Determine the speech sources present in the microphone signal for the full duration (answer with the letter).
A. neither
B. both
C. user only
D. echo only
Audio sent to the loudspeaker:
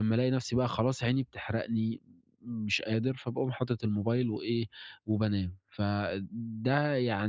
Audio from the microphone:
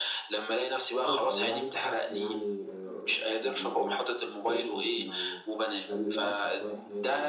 B